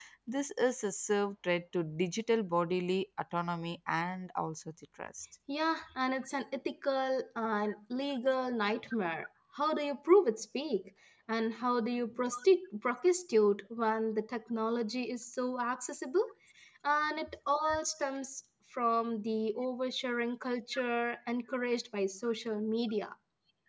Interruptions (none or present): none